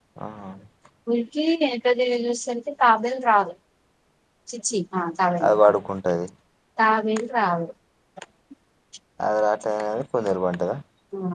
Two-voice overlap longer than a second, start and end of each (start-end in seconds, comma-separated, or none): none